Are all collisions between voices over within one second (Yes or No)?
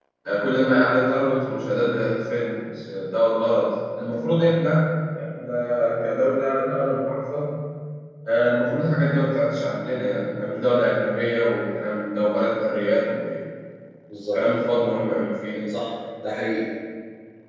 Yes